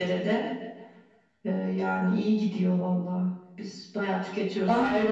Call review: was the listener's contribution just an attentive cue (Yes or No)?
Yes